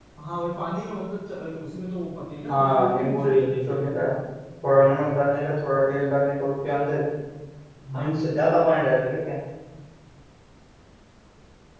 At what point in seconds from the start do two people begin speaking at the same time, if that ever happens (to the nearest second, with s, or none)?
2 s